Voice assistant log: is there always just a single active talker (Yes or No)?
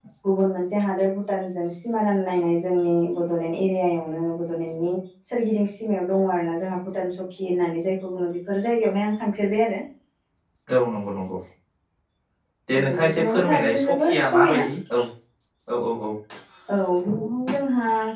No